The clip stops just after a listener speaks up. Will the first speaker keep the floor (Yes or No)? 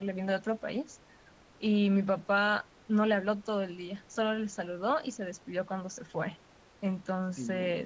Yes